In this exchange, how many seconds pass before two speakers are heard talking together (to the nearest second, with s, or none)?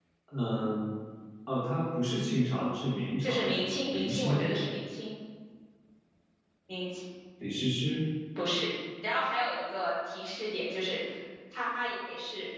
3 s